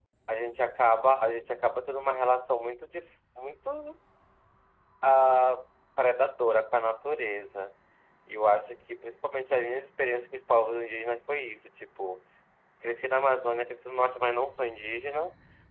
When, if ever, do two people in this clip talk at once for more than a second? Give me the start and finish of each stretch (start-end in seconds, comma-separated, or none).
none